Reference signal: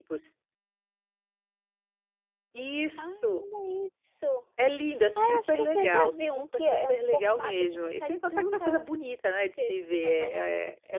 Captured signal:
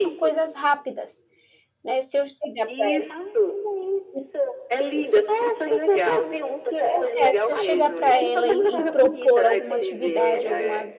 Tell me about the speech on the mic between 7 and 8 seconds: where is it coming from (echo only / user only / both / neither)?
both